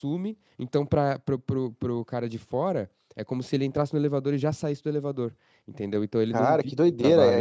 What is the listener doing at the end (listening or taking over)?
taking over